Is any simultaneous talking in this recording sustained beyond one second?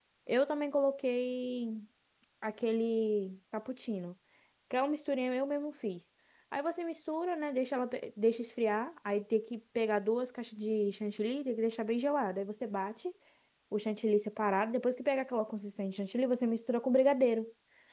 No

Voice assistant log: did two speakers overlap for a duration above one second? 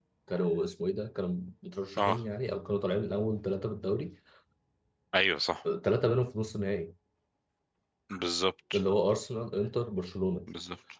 No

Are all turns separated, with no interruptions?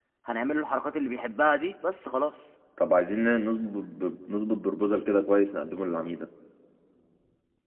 Yes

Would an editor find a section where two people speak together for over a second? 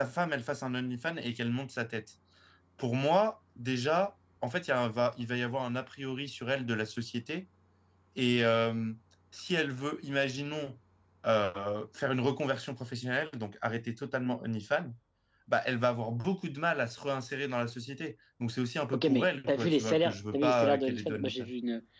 Yes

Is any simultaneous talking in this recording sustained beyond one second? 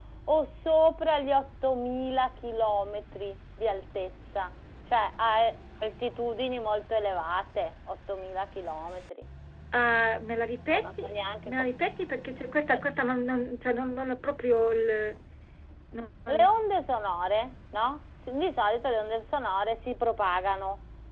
No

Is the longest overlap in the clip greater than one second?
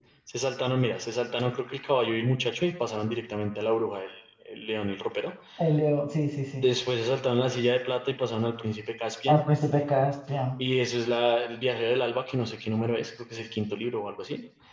No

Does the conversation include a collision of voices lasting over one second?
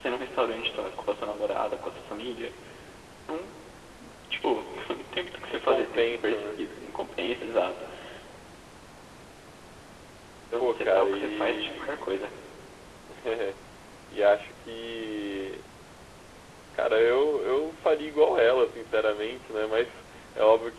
Yes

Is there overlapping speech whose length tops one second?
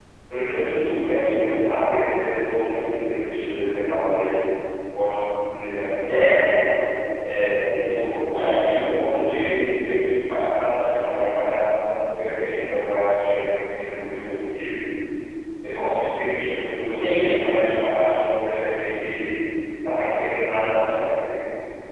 No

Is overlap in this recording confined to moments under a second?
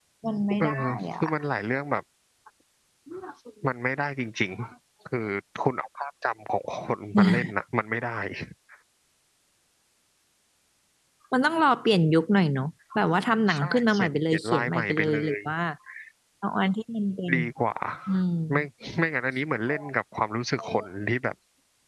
No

